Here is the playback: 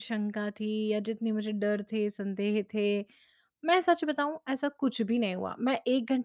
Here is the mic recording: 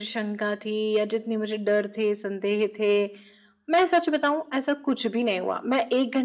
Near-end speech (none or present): none